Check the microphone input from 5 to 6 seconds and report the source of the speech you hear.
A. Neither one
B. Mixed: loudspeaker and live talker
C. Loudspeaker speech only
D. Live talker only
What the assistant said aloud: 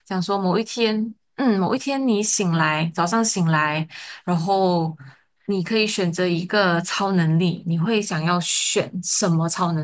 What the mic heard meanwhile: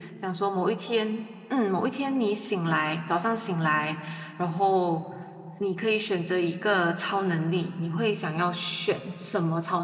C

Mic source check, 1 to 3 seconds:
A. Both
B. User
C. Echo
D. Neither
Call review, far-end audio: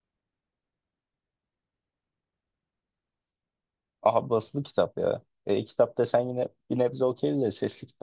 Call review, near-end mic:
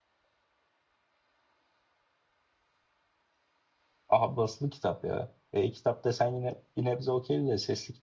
D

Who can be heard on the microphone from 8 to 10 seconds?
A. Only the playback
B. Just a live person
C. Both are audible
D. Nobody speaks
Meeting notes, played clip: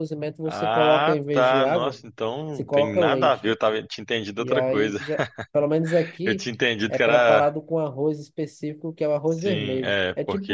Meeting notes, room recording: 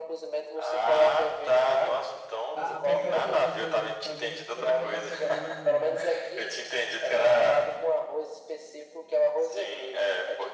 A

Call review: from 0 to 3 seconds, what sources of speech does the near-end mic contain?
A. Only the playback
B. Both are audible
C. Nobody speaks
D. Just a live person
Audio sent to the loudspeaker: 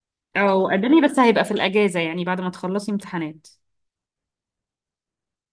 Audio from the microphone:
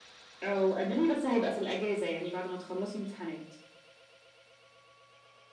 A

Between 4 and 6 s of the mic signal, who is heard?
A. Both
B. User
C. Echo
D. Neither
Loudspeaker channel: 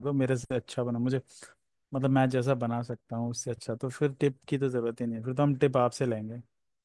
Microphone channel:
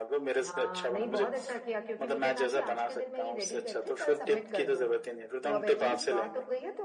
A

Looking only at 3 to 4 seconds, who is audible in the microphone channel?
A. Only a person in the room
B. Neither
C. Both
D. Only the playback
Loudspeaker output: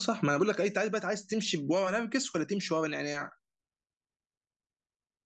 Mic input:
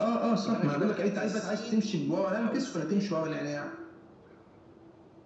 C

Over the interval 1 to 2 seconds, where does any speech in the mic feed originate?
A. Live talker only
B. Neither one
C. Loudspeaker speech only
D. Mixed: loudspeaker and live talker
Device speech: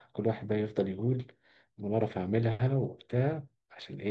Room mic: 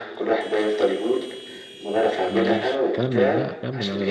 C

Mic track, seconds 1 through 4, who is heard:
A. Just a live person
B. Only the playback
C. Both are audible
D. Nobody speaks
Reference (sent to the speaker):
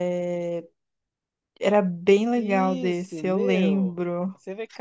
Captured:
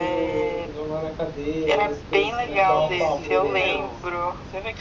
C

